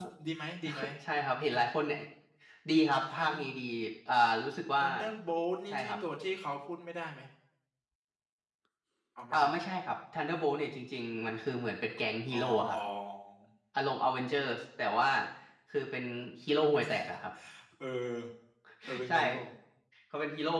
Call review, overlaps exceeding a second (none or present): none